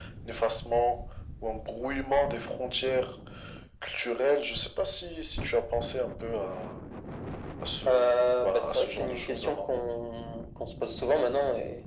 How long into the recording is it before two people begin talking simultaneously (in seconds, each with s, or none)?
7.9 s